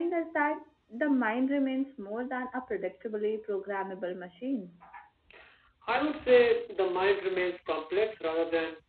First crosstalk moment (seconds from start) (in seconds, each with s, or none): none